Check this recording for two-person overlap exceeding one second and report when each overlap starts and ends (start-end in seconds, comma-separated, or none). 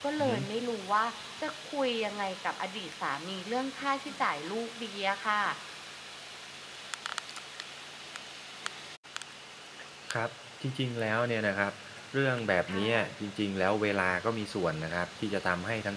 none